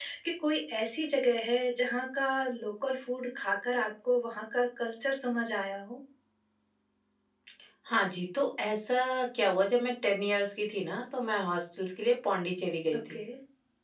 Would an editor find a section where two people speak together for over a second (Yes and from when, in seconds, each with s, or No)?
No